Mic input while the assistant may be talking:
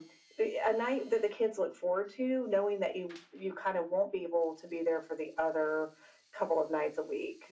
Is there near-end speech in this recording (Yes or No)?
No